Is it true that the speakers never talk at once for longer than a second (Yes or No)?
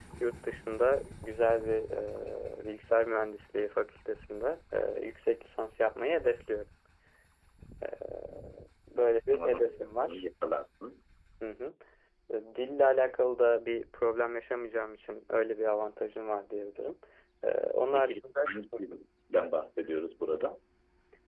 No